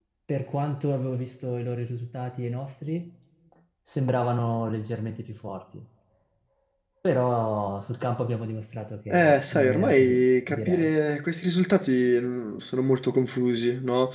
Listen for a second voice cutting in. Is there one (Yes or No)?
Yes